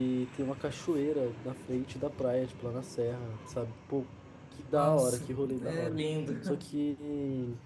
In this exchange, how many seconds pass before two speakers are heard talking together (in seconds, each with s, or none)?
4.7 s